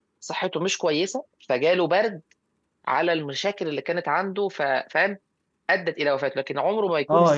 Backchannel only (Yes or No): No